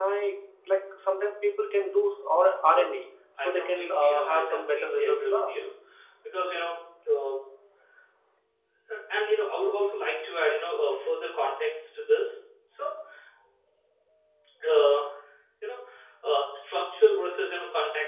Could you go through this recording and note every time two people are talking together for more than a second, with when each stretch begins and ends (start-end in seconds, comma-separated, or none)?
3.4-5.5